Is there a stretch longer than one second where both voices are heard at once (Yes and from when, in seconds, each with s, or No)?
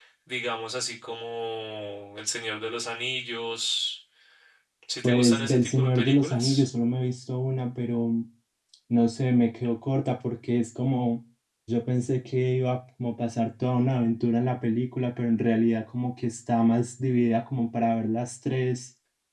Yes, from 5.0 s